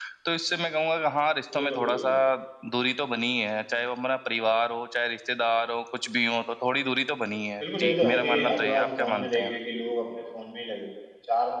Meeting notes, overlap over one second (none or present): present